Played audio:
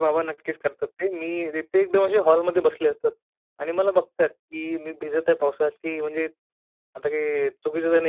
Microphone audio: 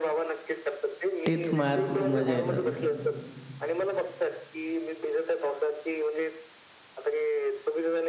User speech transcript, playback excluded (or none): तीच मार अ, मजा येतं.